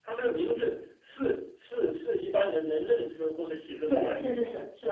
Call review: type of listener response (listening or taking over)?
taking over